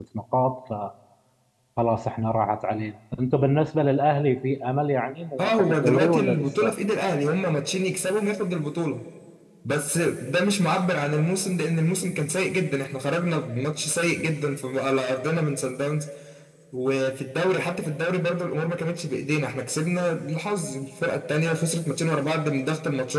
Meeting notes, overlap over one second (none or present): present